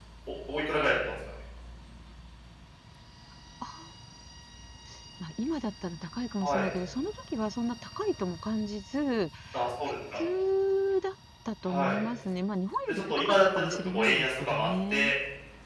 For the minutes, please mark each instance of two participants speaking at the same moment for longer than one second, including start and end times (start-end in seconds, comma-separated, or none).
12.9-15.1